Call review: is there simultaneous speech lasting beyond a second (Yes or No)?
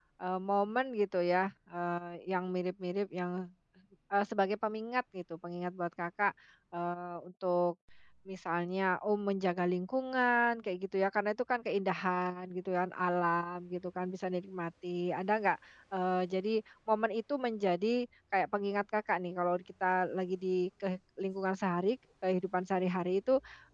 No